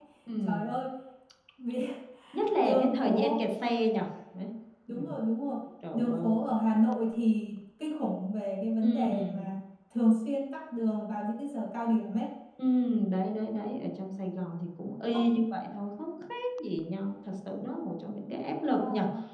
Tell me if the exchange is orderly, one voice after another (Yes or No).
No